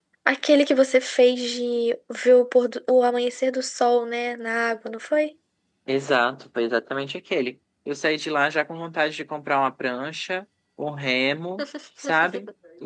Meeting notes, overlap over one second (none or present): none